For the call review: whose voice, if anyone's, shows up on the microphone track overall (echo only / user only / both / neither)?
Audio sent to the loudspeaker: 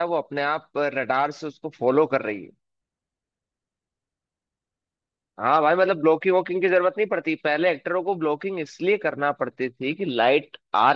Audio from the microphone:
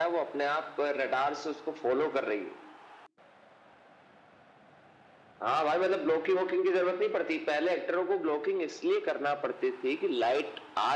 echo only